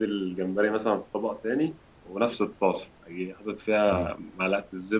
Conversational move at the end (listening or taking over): listening